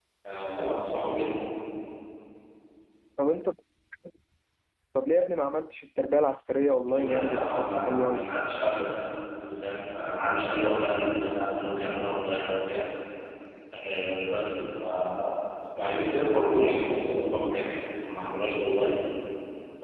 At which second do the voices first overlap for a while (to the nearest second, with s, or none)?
7 s